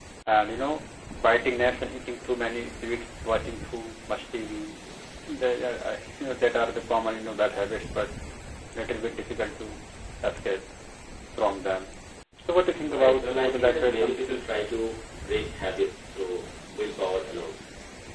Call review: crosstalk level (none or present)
present